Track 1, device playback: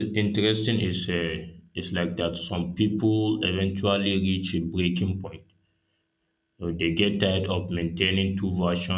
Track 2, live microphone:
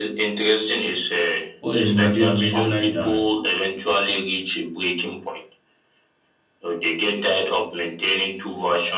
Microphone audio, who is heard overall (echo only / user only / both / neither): both